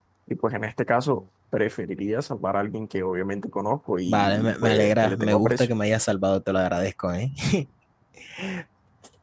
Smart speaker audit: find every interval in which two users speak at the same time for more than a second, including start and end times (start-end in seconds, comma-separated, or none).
4.1-5.7